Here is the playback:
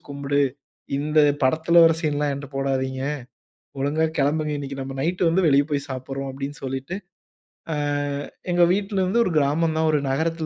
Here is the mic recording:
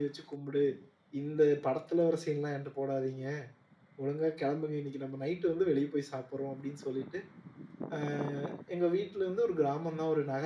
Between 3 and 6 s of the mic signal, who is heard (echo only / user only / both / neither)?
echo only